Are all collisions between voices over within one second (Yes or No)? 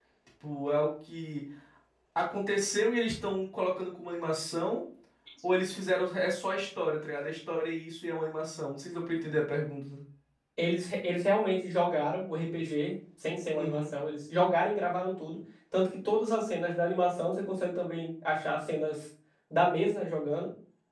Yes